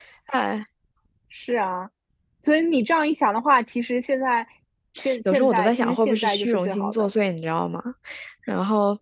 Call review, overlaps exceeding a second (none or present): present